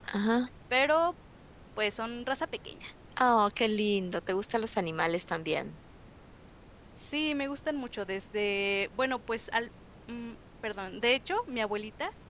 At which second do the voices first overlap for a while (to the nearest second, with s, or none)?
none